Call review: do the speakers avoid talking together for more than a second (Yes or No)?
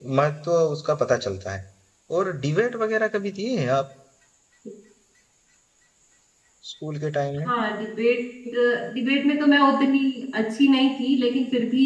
Yes